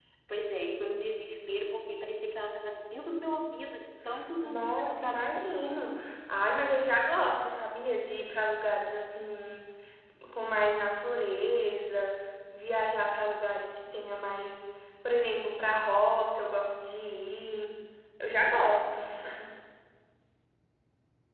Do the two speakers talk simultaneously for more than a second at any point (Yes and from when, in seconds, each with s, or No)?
Yes, from 4.4 s